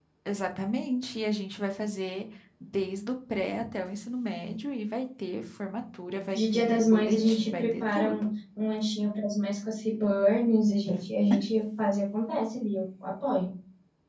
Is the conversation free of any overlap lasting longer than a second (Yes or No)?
No